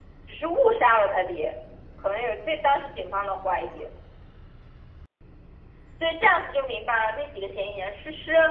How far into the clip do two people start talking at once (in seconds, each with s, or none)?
none